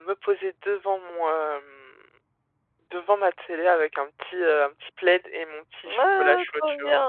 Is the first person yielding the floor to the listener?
Yes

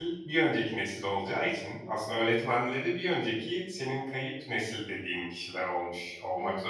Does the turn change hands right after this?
Yes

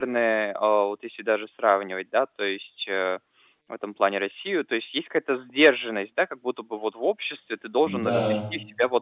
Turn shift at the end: No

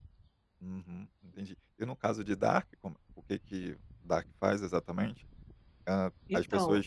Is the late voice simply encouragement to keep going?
Yes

